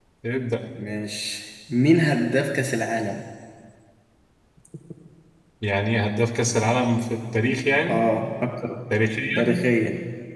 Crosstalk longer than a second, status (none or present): none